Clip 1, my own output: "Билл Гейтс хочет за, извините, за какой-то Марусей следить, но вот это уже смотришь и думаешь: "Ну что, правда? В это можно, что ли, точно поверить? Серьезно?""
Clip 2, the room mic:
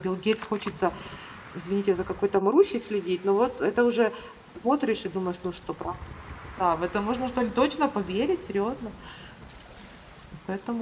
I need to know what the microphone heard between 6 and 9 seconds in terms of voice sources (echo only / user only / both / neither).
echo only